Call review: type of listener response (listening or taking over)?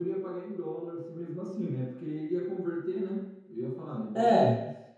taking over